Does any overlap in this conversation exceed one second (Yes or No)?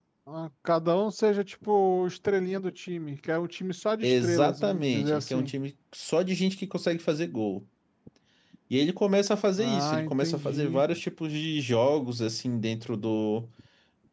Yes